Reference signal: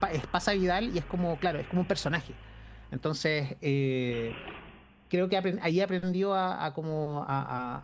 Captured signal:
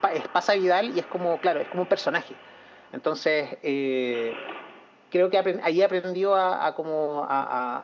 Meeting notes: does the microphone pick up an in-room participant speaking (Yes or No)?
No